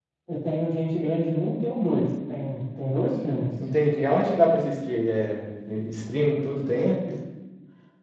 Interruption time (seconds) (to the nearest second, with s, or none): none